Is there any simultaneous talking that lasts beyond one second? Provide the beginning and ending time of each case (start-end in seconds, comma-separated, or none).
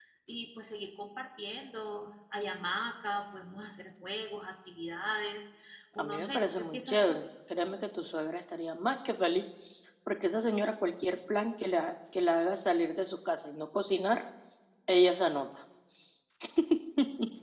6.0-7.2